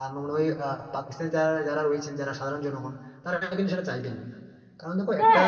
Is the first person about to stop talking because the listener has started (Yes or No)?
Yes